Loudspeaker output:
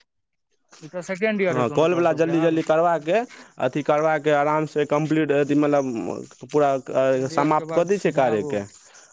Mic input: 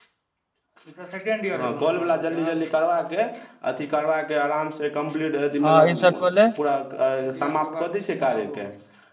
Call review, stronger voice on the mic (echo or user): user